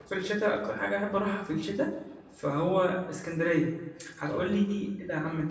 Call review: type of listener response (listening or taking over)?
listening